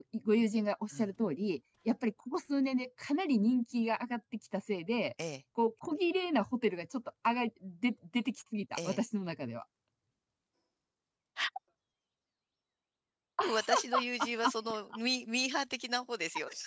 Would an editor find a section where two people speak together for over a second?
No

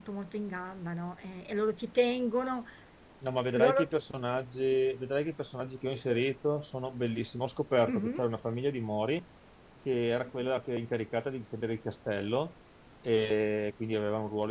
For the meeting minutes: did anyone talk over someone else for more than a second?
No

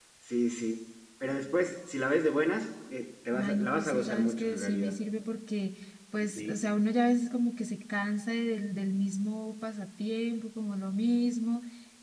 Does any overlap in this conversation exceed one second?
Yes, from 3.4 s

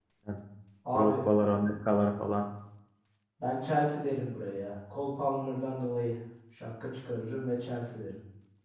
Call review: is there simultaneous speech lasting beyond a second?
No

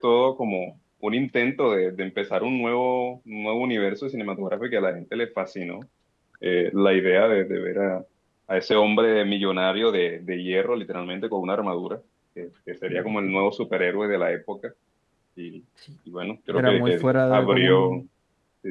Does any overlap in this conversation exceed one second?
Yes, from 16.5 s

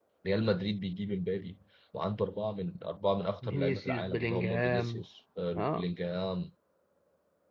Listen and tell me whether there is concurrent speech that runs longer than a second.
Yes, from 3.4 s

